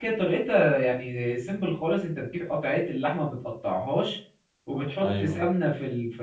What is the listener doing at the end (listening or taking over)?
listening